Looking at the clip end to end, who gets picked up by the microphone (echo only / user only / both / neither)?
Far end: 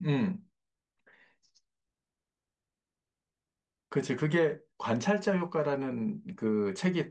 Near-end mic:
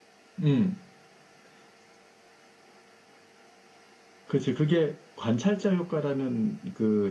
echo only